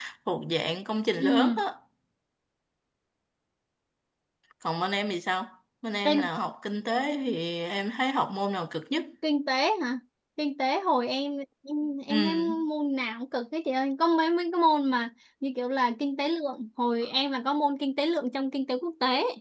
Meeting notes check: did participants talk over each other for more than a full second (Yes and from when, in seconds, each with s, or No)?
No